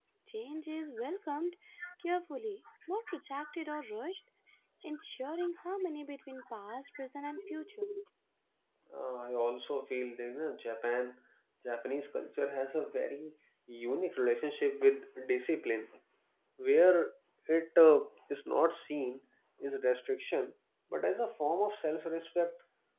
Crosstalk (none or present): none